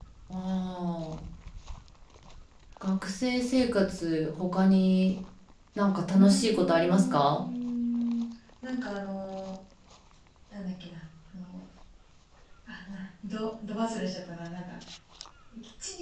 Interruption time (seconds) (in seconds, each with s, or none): 6.1 s